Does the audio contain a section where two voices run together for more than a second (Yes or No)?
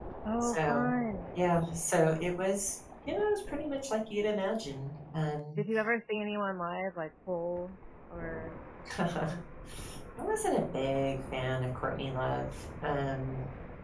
No